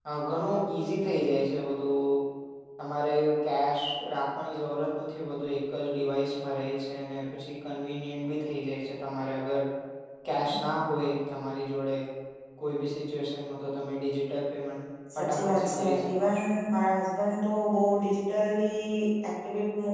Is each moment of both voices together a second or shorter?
No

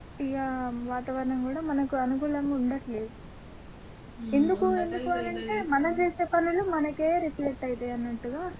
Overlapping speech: Yes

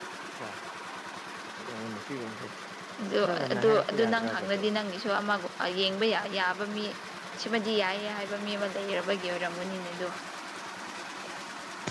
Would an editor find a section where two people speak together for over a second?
Yes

